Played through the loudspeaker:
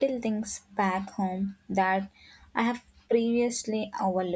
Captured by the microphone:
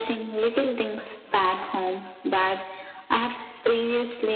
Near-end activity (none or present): none